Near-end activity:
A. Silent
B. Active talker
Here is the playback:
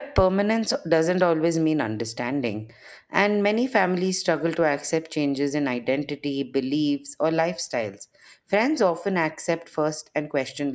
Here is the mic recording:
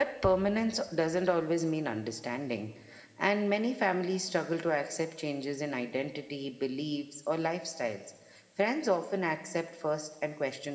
A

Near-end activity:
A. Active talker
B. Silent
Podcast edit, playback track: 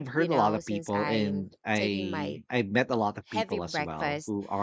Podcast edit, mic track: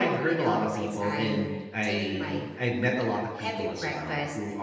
B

